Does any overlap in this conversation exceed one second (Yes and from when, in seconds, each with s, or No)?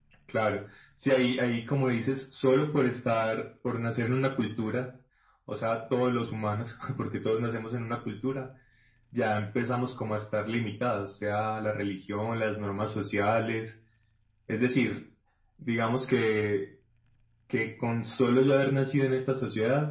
No